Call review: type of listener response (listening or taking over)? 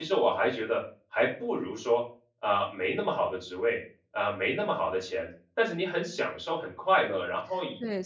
taking over